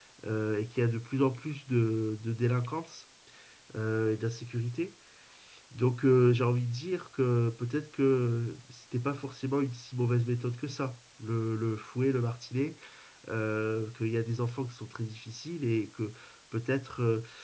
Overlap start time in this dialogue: none

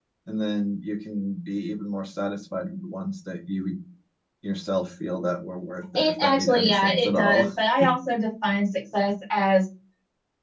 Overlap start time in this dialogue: 6 s

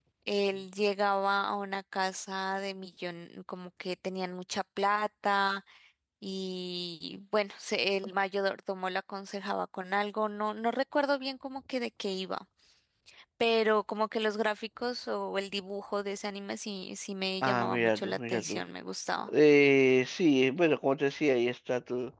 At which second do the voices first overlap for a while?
17 s

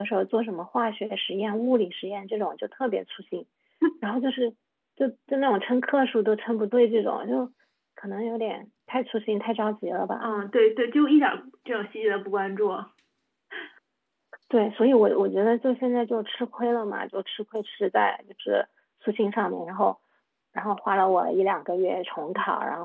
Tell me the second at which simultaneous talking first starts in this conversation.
none

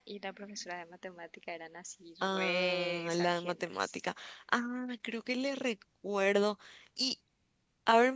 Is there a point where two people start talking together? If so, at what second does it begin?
2 s

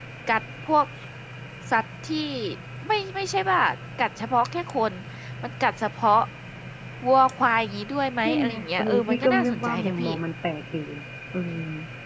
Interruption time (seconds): 8 s

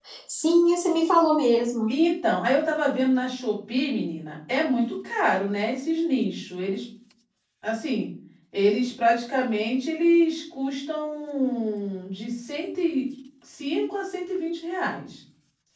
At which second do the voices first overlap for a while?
none

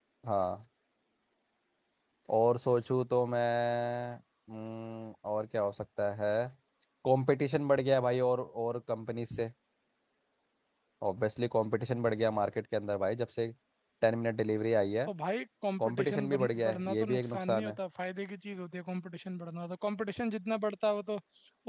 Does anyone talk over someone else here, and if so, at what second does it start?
16 s

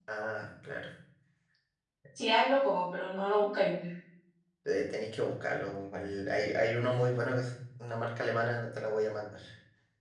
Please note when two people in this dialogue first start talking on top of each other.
none

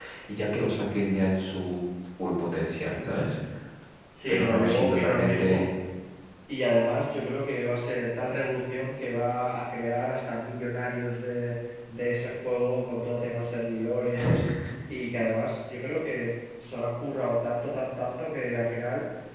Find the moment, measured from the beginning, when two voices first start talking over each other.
4 s

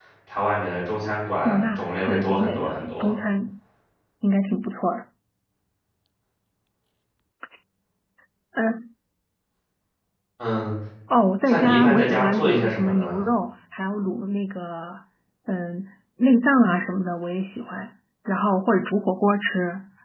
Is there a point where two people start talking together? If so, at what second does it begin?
1 s

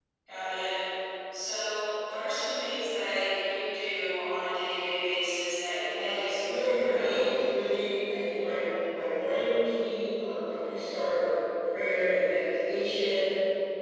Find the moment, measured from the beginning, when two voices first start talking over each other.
6 s

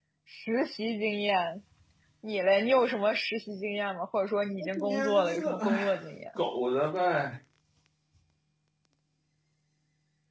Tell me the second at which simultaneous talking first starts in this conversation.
5 s

